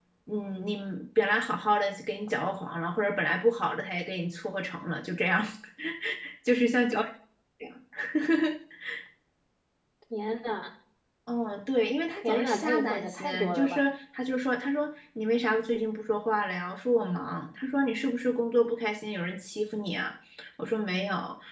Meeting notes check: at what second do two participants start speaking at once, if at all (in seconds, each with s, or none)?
12.2 s